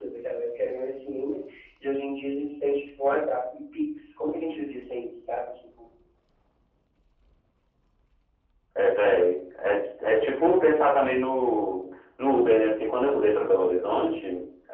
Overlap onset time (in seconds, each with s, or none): none